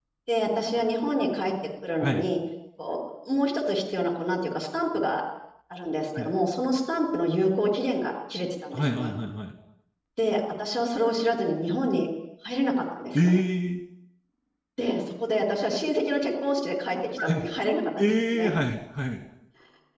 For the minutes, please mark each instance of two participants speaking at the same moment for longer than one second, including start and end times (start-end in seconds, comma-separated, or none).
none